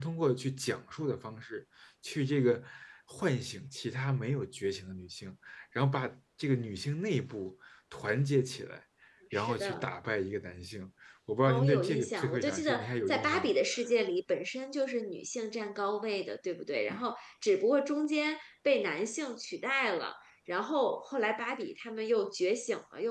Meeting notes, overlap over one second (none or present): present